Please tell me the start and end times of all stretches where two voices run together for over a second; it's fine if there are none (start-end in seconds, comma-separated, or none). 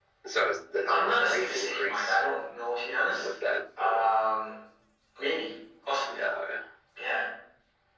0.9-2.2